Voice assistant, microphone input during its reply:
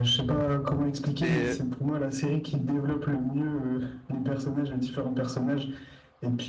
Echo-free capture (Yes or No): No